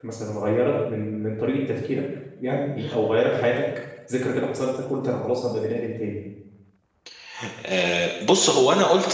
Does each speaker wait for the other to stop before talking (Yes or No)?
Yes